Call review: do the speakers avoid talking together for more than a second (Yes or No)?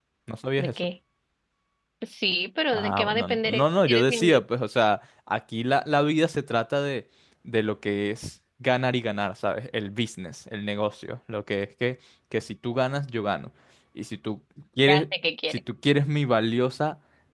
No